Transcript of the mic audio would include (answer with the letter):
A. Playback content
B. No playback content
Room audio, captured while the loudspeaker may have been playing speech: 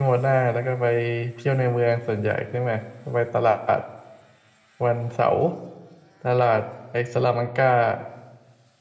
B